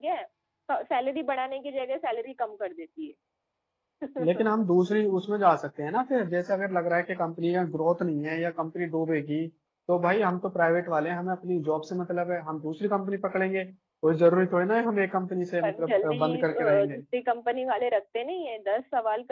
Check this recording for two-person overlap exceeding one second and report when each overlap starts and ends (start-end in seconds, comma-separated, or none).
15.6-17.0